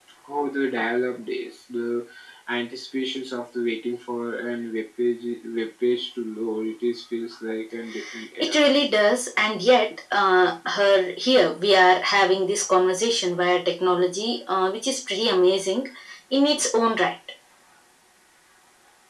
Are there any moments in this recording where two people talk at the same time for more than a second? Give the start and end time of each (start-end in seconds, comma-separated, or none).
none